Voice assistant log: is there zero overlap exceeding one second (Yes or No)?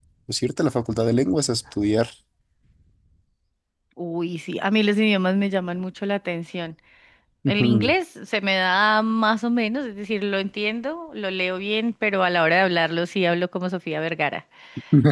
Yes